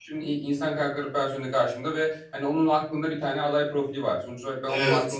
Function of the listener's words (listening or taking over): listening